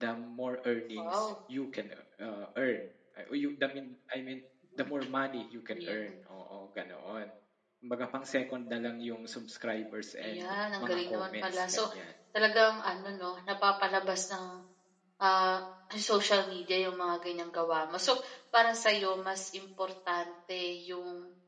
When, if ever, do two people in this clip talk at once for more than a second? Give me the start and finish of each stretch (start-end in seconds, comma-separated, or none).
10.2-11.8